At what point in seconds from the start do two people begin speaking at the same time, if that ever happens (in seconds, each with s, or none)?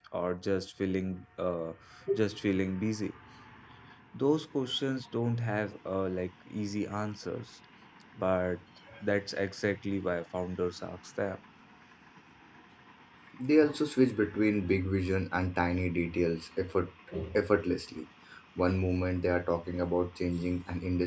none